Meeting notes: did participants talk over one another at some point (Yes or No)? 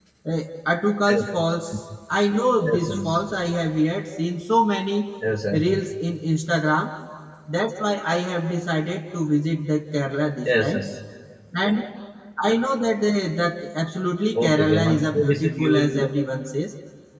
Yes